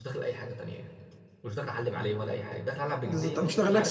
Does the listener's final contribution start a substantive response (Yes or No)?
Yes